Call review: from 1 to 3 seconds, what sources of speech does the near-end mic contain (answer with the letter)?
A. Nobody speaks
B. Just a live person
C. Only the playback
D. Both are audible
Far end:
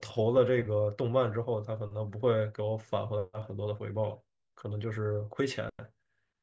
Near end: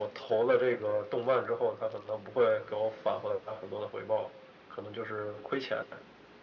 C